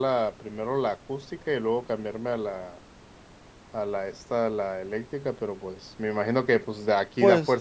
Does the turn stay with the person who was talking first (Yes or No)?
Yes